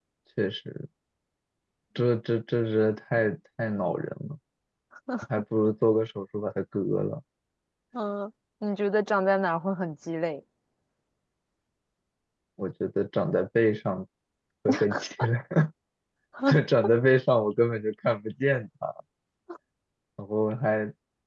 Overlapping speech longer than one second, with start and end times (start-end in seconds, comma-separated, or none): none